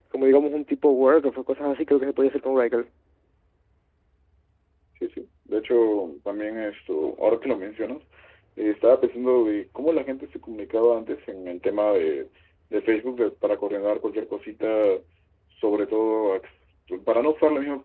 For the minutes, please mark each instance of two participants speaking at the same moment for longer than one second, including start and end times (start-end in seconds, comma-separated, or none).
none